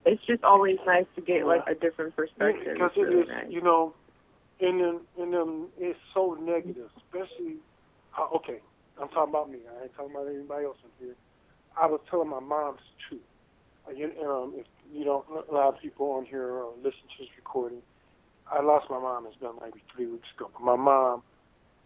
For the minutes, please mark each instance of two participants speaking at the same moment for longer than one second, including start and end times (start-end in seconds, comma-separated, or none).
2.4-3.7